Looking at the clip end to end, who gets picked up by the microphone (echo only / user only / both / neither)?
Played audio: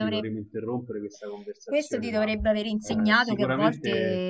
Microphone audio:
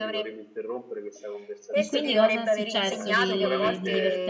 both